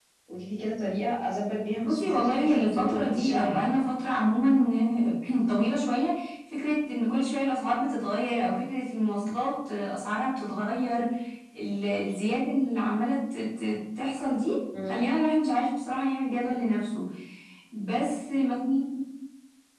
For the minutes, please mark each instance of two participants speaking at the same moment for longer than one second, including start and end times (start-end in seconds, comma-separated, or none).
1.8-3.7